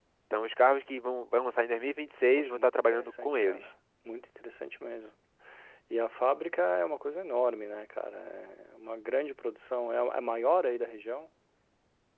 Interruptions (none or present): present